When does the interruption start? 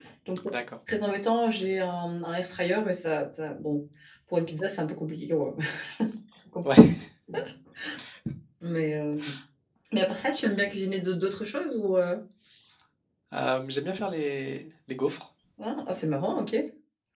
none

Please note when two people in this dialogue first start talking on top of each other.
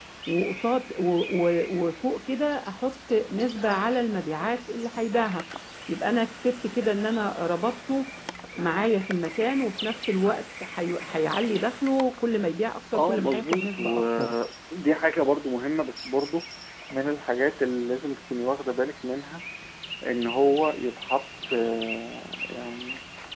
12.9 s

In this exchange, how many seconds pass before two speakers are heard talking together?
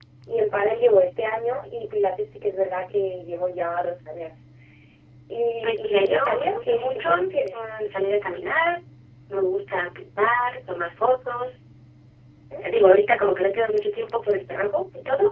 5.6 s

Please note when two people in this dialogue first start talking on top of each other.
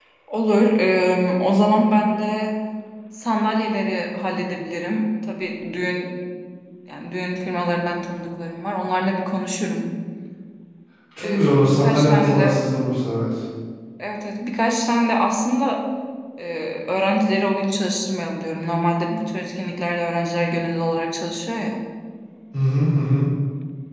11.2 s

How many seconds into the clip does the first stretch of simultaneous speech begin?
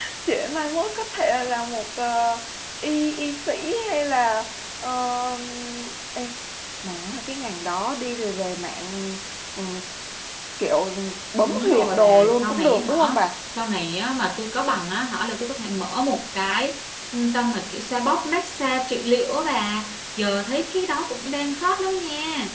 11.5 s

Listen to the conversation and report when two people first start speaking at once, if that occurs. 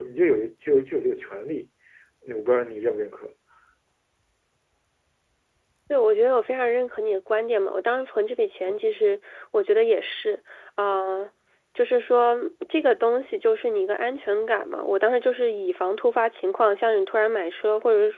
none

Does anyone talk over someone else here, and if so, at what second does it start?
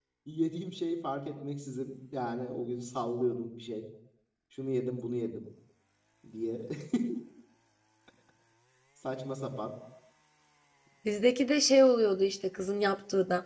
none

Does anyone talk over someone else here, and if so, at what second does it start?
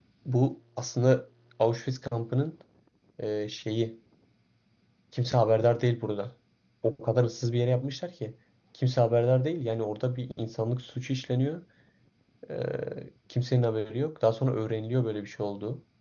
none

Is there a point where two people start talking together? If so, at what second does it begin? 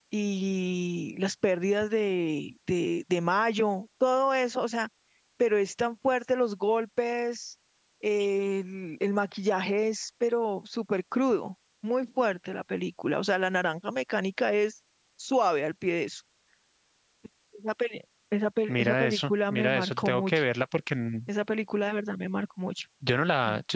18.7 s

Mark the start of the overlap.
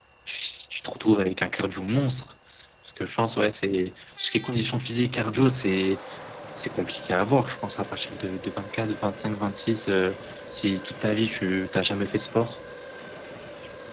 none

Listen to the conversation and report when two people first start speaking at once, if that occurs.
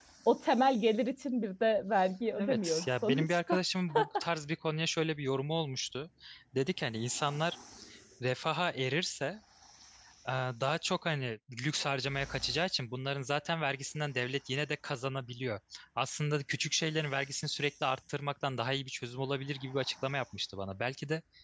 2.4 s

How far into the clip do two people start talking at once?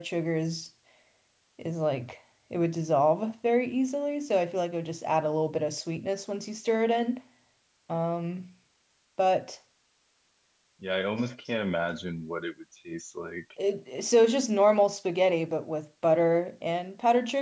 none

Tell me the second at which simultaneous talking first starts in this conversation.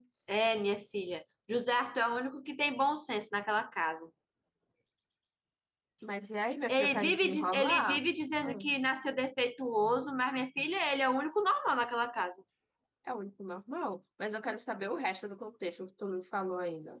6.7 s

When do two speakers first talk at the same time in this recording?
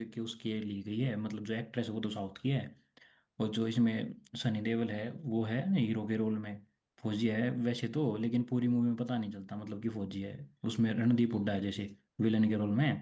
none

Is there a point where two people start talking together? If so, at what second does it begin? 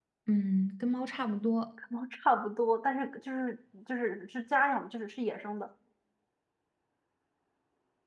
none

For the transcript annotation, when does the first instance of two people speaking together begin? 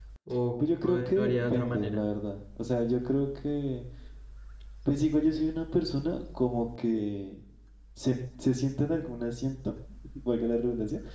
0.8 s

